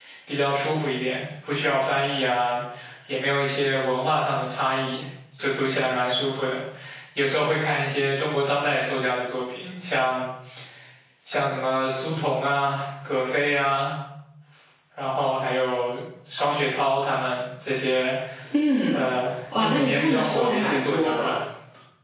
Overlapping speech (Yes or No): Yes